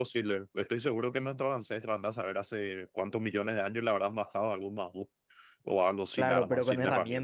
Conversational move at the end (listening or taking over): taking over